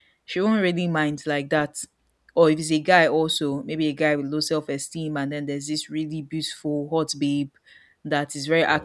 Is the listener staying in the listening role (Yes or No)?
Yes